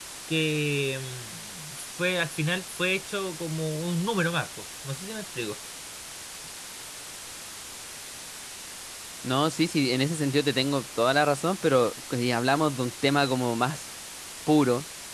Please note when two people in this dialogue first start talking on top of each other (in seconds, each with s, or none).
none